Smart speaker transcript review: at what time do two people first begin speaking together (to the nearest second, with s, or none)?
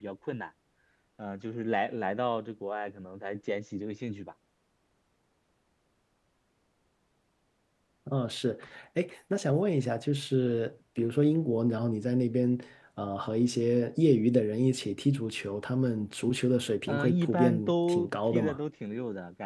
17 s